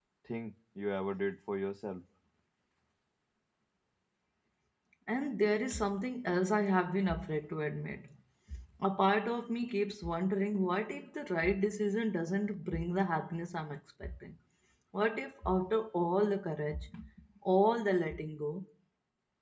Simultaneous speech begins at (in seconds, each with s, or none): none